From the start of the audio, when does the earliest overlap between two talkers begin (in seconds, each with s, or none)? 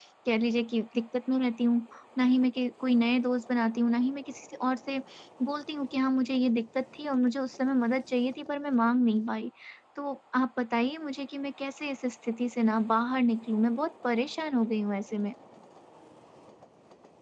none